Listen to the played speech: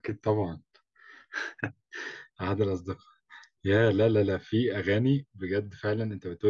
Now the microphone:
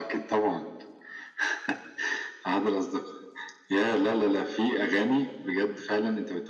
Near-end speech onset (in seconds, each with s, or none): none